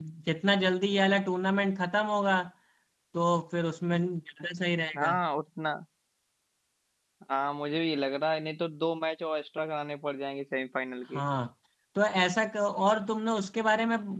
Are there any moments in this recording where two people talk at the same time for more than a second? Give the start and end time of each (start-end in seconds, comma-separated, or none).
none